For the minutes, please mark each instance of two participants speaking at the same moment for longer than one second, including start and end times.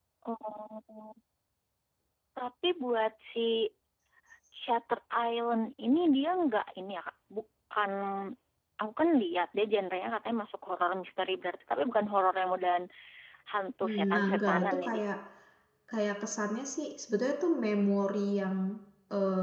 13.8-15.0

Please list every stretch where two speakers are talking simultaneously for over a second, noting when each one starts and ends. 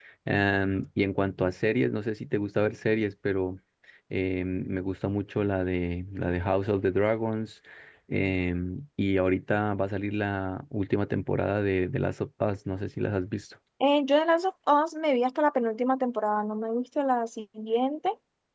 none

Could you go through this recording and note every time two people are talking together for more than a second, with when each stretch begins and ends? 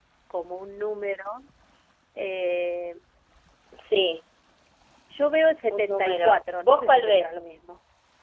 5.7-7.3

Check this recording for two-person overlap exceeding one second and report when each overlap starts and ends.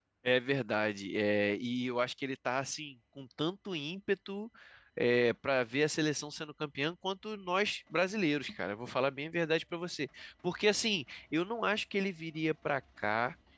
none

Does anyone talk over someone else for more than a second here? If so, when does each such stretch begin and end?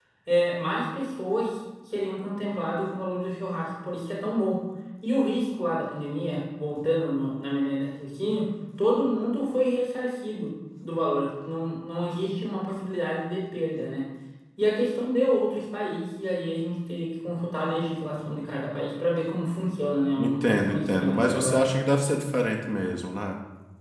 20.2-21.6

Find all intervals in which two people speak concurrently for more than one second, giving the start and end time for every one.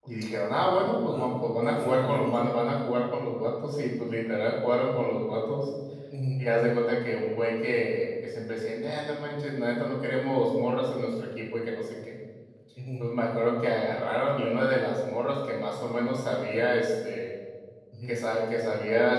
1.1-2.4

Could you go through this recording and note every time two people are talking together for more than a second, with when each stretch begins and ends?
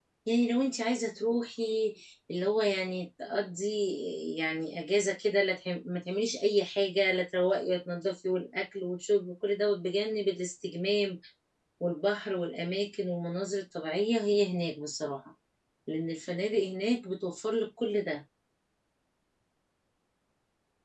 none

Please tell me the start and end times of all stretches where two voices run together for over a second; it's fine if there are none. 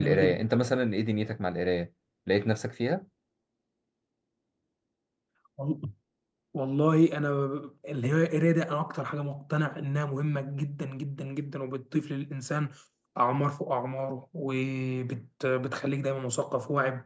none

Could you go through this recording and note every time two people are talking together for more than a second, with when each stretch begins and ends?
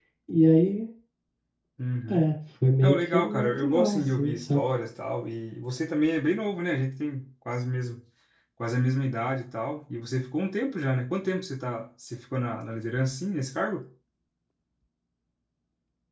2.8-4.6

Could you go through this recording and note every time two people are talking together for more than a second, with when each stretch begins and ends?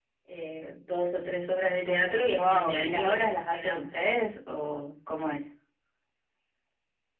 2.4-4.0

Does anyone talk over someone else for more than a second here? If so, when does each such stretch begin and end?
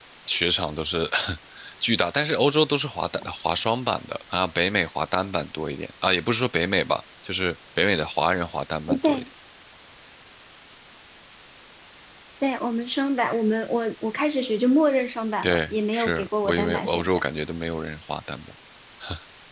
15.4-17.2

